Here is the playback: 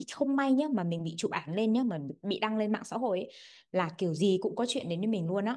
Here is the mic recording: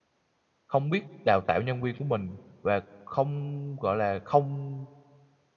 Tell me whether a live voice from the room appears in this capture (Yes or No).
Yes